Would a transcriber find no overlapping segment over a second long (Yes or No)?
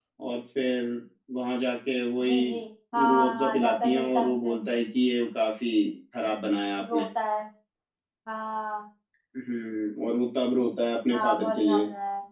No